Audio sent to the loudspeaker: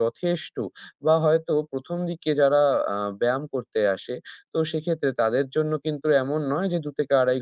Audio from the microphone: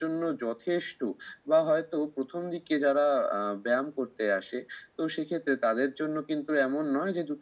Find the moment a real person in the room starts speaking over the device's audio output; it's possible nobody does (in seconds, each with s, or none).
none